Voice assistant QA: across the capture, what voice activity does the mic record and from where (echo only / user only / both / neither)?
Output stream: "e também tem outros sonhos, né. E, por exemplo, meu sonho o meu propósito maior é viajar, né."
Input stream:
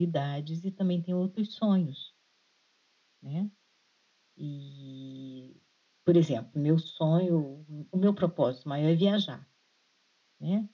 echo only